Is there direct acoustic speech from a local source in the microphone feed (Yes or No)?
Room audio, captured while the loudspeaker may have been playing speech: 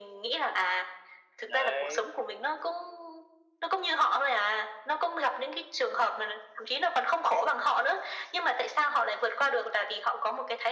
Yes